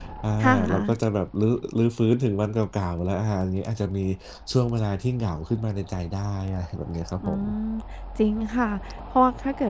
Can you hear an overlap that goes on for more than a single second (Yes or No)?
No